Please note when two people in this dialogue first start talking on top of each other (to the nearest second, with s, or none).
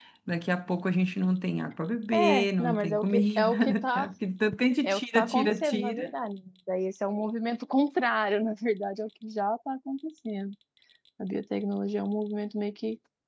2 s